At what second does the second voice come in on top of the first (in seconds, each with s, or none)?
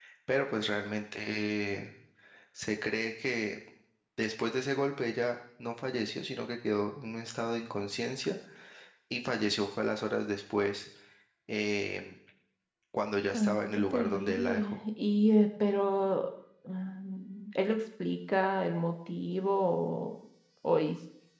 13.3 s